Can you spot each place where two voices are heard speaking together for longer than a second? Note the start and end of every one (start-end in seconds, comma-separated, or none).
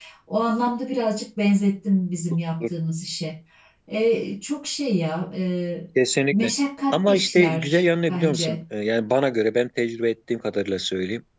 6.9-8.6